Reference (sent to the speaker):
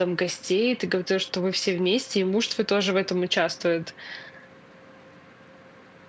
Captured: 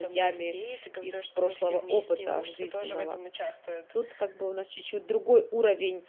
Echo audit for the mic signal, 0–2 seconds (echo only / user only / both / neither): both